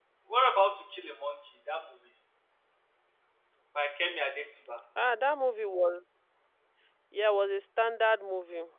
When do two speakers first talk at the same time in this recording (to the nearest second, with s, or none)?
none